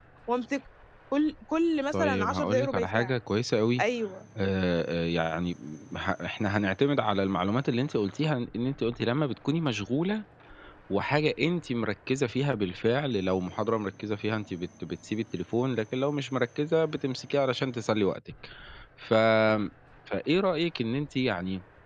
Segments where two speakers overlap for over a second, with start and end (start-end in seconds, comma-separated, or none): 1.9-3.1